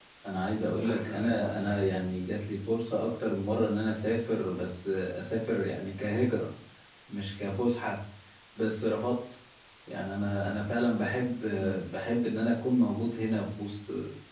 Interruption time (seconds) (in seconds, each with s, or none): 0.6 s